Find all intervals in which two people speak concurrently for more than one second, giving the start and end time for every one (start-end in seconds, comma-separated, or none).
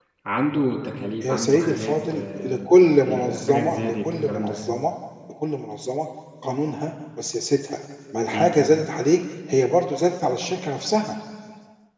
1.2-2.7, 3.1-4.6